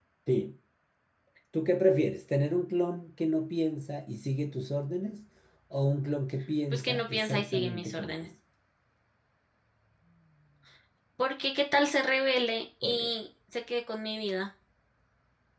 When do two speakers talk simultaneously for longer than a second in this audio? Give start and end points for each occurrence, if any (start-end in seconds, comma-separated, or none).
6.7-8.2